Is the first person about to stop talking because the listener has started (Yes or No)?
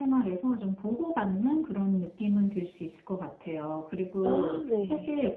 No